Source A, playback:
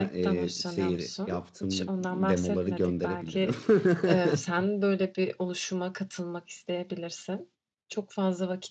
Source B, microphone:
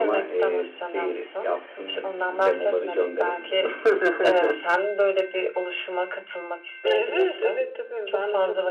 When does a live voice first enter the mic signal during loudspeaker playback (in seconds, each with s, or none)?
6.9 s